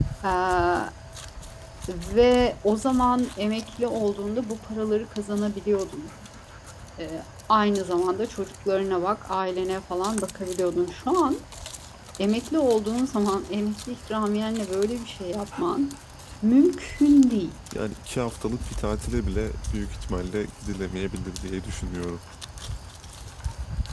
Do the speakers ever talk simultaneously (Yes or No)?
No